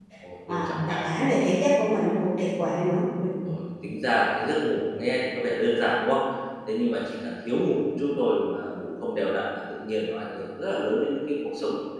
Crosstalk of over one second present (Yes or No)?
No